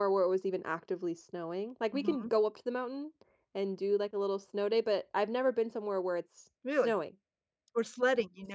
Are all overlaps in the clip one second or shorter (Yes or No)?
Yes